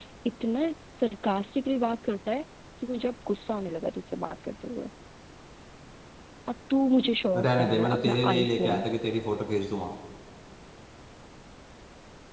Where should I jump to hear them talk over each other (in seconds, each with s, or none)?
7.3 s